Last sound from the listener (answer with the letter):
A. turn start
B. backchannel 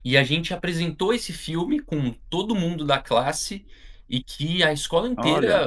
B